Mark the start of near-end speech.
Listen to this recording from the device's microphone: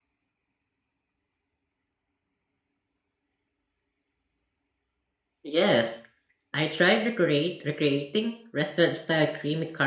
5.5 s

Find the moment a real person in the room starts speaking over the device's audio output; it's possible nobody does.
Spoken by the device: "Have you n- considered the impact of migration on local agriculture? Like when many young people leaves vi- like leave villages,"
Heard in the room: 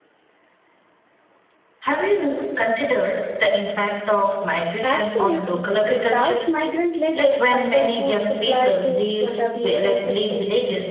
4.8 s

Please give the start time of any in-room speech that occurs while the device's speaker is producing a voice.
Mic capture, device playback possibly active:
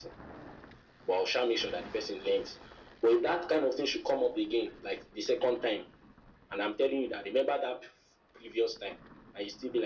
none

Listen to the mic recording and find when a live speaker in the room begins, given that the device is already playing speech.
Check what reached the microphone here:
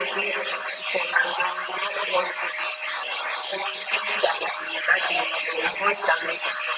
none

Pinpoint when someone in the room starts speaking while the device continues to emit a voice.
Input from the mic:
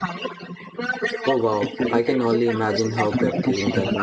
1.2 s

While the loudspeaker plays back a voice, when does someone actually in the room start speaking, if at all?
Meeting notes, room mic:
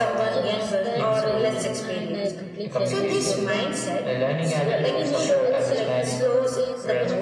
0.3 s

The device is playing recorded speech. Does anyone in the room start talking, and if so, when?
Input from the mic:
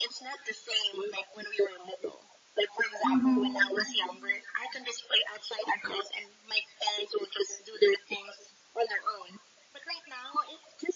3.0 s

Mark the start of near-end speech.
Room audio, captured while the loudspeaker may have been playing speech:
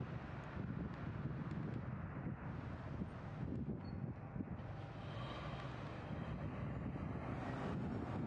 none

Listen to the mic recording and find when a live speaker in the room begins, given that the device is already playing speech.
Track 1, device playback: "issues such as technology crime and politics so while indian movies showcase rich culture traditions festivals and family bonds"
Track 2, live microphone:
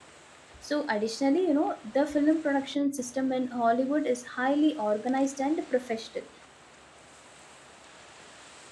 0.6 s

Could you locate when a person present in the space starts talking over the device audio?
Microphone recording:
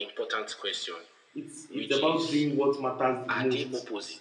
1.3 s

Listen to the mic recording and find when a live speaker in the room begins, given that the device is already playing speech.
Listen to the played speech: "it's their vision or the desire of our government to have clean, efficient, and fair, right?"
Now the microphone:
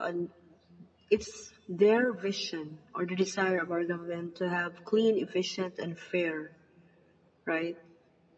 none

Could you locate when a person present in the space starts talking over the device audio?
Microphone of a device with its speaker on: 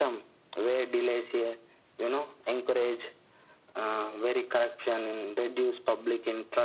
none

